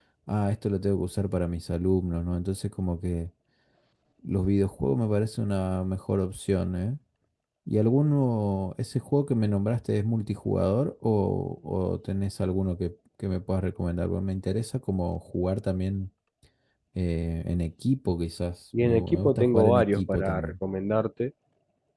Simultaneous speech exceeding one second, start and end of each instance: 18.8-20.5

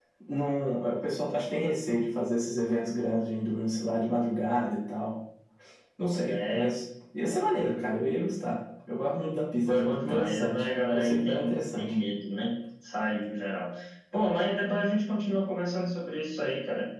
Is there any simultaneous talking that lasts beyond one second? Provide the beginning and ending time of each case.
9.7-11.9

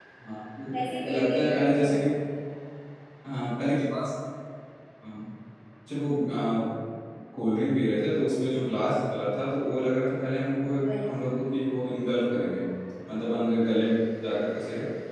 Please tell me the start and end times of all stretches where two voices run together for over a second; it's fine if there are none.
0.7-2.0

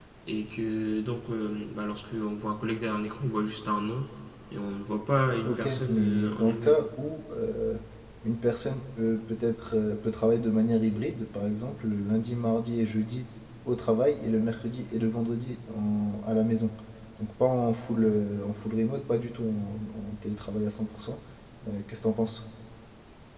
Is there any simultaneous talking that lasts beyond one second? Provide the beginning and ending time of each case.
5.4-6.8

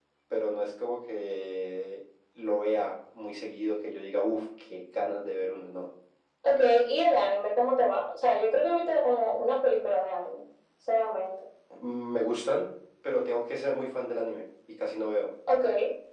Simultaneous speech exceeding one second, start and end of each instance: none

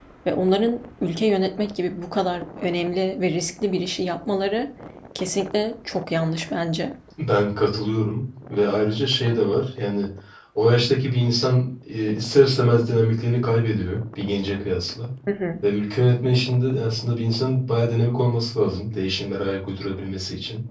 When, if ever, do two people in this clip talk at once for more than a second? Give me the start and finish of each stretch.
none

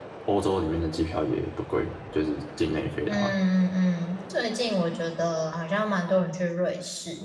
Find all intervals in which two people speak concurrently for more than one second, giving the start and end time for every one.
none

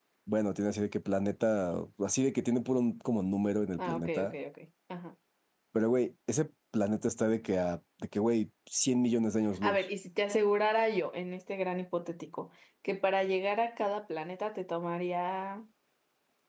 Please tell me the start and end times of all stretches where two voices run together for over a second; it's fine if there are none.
none

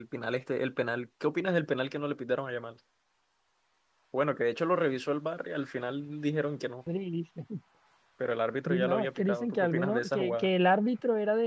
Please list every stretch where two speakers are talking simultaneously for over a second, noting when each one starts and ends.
8.7-10.5

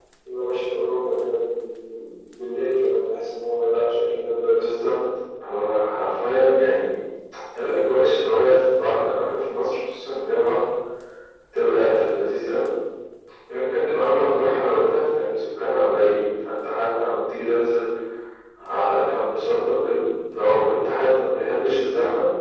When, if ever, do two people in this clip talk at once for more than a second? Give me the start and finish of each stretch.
none

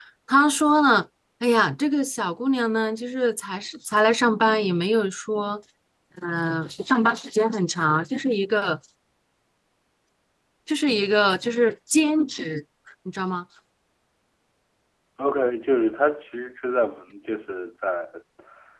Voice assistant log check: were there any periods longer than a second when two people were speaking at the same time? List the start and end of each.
none

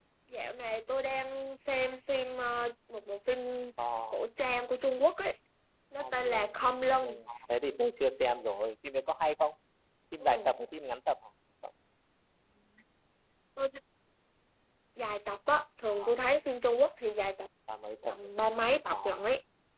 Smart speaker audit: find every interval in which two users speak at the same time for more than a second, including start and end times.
6.0-7.2

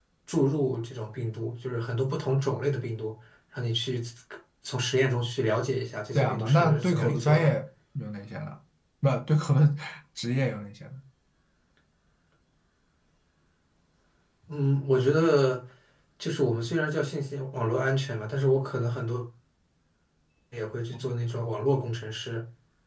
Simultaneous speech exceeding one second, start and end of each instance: 6.2-7.5

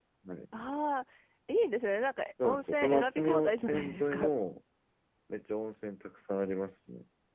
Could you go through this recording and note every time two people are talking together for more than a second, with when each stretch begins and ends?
2.4-4.3

